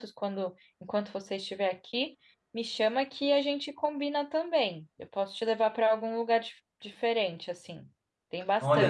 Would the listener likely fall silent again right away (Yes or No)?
No